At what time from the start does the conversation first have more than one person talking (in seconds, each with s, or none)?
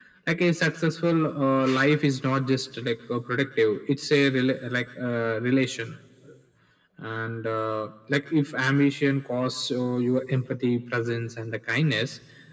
none